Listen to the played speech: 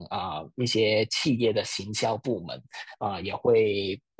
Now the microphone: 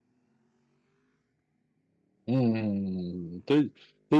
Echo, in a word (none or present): none